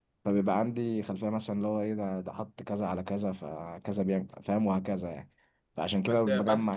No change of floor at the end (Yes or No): No